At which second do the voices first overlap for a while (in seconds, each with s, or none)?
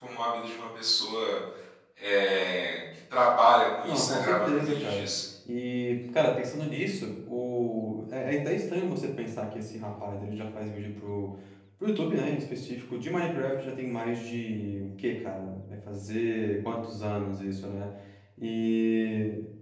3.8 s